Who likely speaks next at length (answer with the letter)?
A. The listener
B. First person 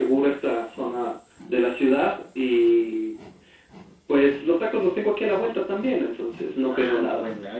A